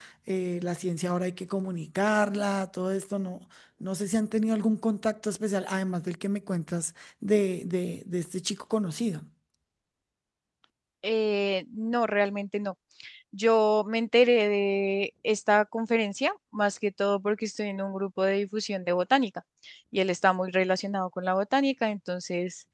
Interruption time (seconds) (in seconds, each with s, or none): none